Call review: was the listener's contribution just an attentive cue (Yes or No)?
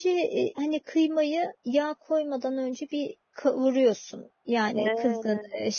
Yes